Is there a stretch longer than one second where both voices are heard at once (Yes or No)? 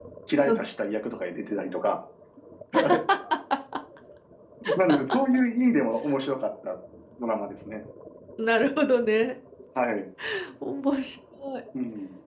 No